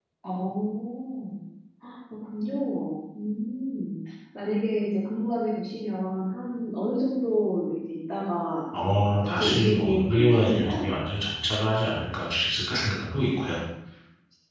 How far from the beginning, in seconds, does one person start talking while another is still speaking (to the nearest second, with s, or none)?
9 s